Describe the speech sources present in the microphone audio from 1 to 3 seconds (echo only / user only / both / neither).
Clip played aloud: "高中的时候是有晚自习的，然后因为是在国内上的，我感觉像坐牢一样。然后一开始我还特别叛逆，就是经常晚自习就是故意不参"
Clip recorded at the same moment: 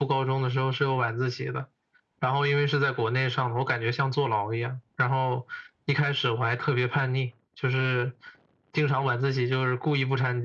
echo only